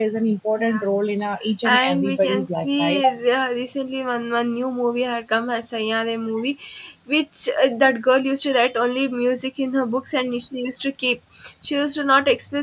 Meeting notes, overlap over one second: present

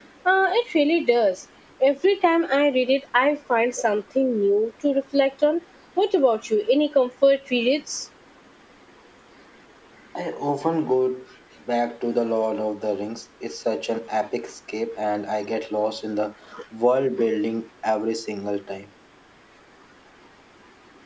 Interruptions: none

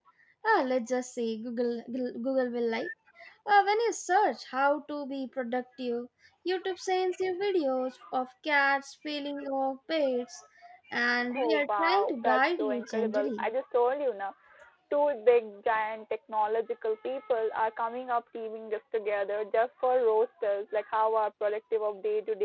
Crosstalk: present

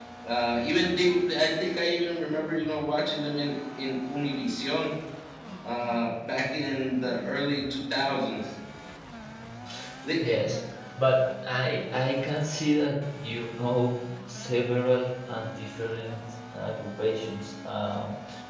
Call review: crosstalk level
none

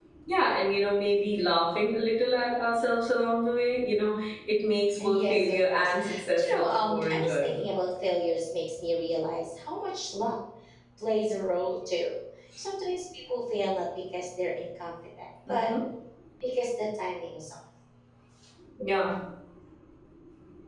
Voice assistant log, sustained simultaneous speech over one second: present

